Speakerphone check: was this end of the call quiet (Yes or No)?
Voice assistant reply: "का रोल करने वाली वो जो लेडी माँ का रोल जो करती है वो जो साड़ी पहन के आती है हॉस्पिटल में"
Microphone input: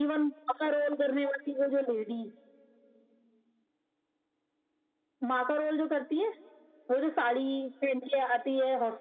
Yes